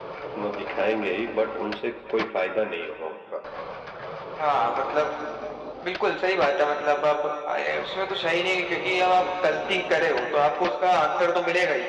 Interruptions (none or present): none